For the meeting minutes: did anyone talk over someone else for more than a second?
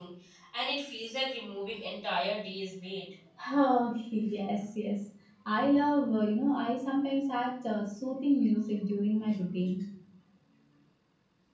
No

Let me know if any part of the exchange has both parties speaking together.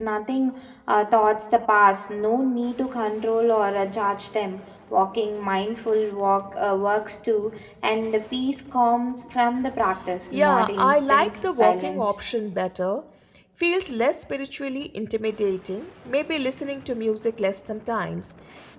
Yes, from 10.3 s

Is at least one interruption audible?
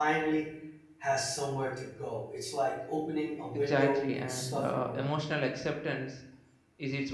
Yes, from 3.5 s

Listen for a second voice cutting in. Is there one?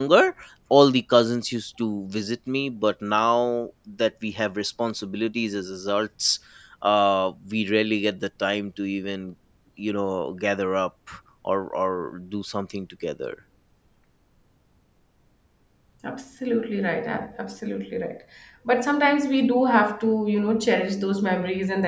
No

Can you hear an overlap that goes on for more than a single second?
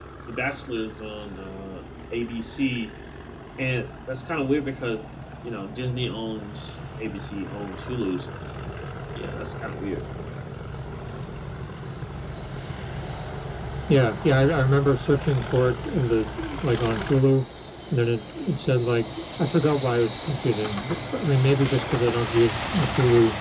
No

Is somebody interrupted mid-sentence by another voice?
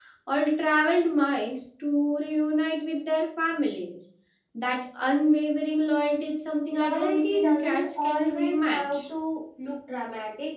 Yes, from 6.7 s

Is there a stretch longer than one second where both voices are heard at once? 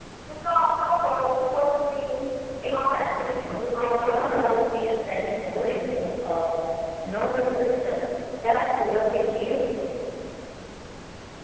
Yes, from 2.7 s

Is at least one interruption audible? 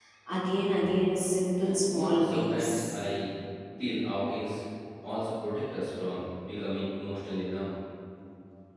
Yes, from 1.6 s

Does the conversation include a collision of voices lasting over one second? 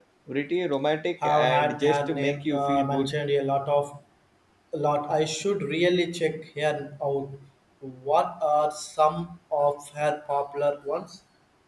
Yes, from 1.2 s

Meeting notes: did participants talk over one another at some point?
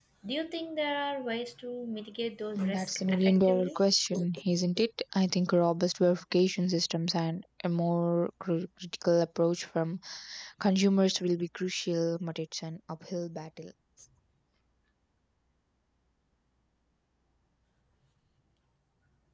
Yes, from 2.6 s

